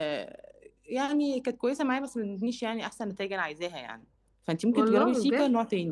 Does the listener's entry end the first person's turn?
No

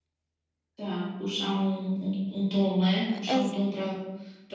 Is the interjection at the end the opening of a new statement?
No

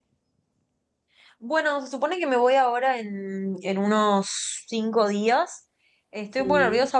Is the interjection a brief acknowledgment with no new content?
Yes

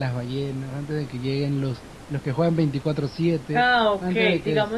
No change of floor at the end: No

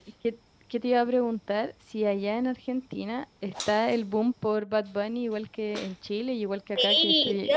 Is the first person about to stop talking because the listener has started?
Yes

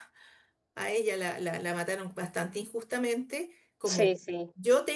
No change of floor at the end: Yes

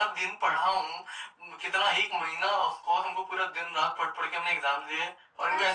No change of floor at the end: No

